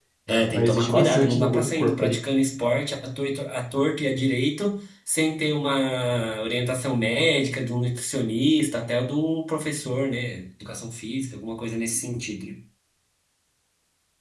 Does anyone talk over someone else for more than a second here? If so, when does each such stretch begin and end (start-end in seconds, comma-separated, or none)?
0.5-2.2